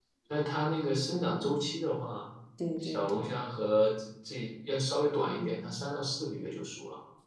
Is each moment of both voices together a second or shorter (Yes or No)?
Yes